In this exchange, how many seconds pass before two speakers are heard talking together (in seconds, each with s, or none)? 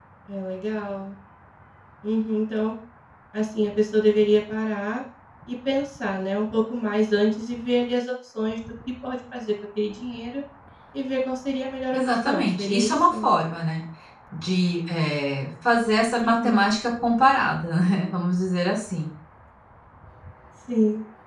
11.9 s